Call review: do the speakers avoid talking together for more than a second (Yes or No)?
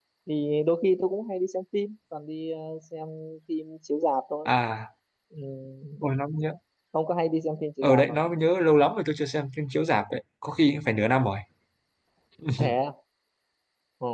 Yes